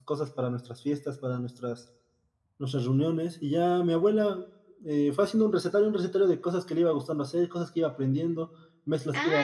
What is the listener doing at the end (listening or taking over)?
taking over